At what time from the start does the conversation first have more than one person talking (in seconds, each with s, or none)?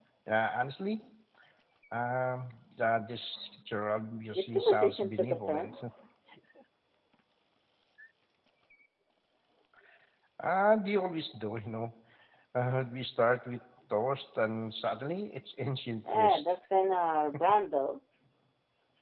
4.3 s